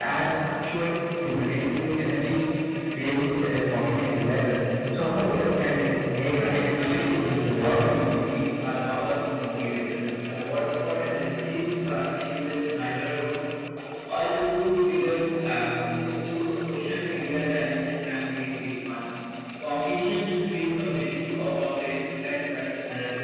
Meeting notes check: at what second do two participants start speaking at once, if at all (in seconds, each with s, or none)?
6.3 s